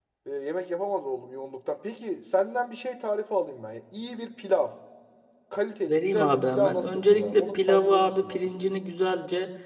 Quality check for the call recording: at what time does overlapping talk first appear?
5.9 s

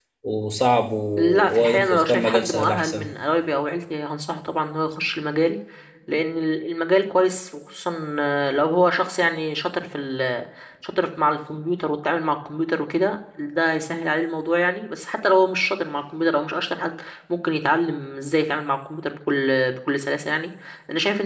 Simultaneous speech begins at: 1.2 s

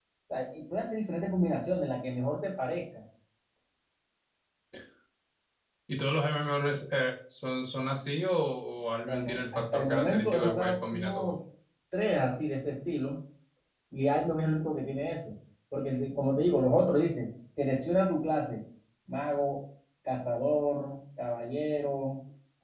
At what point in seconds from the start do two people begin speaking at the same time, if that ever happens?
9.0 s

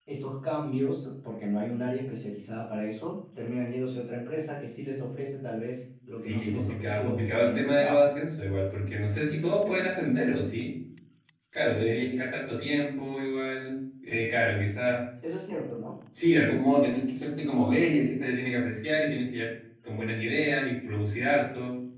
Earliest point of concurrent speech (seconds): 6.2 s

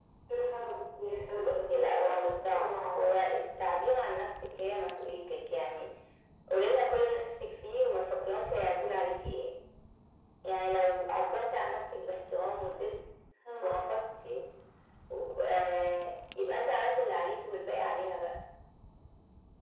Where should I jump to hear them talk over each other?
1.3 s

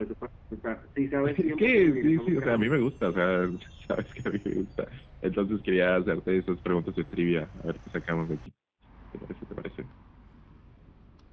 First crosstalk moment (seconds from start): 1.2 s

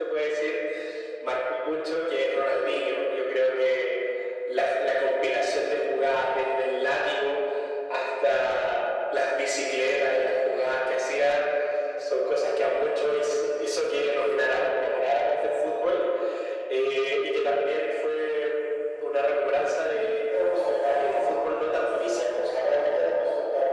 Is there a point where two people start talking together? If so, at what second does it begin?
20.9 s

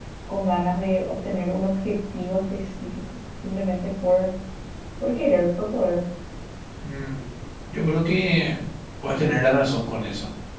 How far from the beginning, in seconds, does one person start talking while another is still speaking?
none

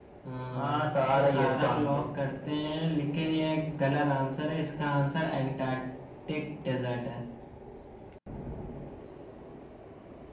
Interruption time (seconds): 0.5 s

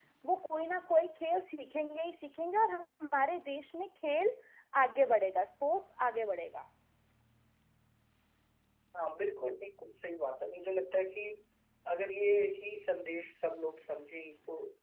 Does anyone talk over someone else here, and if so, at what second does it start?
none

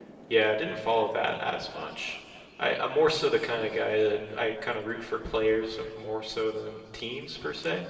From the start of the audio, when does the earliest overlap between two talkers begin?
none

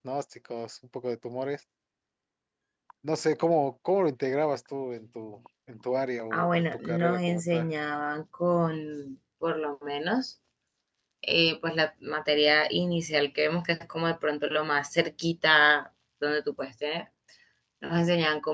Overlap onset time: 6.3 s

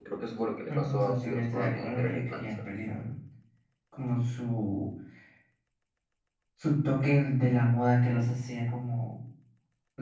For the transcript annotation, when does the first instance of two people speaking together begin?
0.7 s

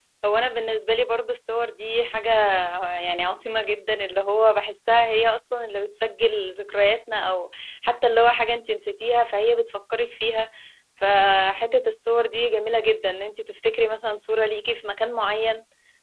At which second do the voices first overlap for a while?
none

